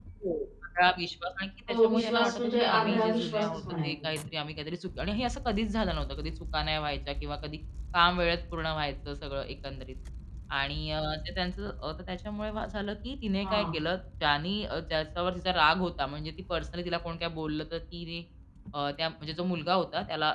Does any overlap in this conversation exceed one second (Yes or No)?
Yes